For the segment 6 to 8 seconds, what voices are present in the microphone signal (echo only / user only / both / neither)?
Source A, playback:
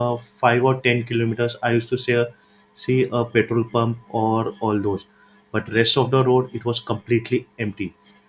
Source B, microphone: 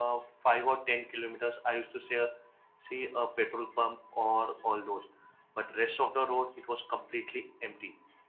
echo only